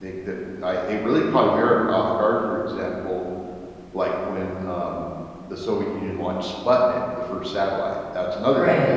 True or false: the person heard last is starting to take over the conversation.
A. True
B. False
B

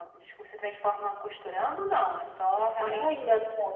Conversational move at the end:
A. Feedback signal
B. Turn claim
B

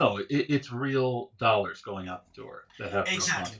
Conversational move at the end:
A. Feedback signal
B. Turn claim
B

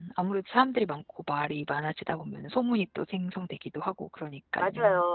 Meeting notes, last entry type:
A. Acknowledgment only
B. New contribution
B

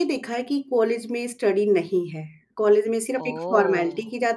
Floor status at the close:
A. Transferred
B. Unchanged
B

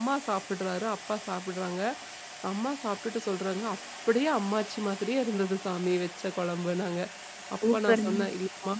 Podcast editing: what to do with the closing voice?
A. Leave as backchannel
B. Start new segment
A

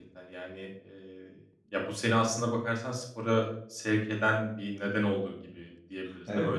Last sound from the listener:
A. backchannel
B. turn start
B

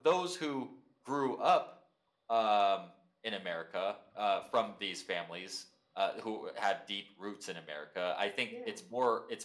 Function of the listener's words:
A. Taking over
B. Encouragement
B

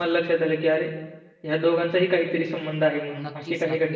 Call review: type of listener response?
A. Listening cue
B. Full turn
B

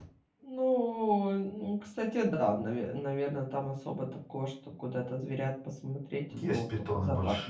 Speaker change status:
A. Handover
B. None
A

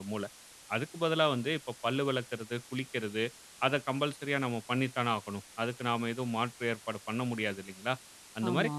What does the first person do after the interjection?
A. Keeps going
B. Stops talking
A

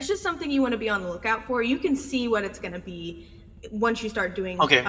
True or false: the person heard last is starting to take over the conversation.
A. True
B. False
B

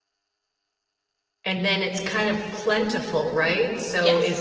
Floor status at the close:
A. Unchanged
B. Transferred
A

